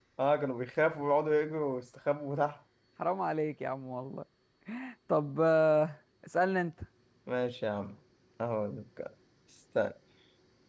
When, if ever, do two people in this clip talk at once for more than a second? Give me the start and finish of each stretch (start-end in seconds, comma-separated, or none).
none